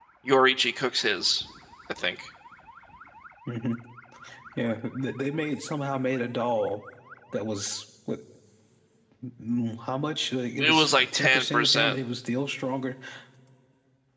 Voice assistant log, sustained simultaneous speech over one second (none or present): present